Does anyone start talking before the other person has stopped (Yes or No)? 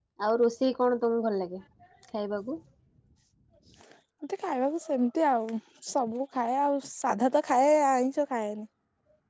No